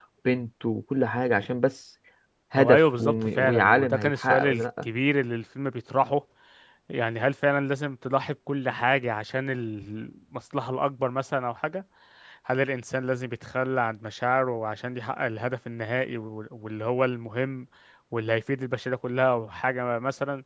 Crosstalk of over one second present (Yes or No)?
Yes